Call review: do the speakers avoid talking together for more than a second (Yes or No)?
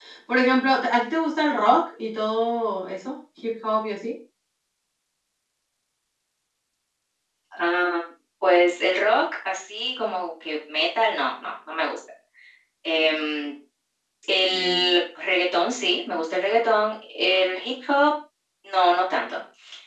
Yes